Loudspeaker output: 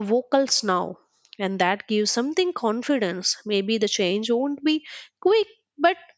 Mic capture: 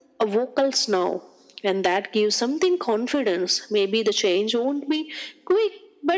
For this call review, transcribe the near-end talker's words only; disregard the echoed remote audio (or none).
none